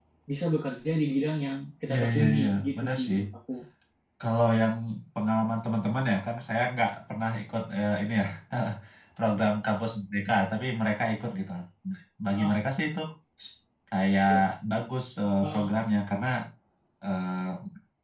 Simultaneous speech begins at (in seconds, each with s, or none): 1.9 s